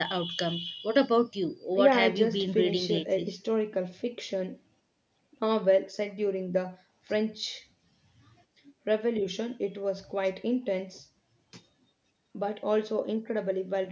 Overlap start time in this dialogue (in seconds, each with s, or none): 1.8 s